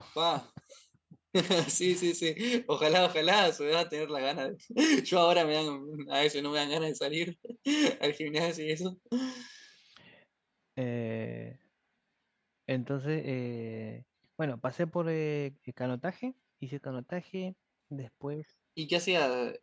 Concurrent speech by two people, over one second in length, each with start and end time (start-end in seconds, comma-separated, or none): none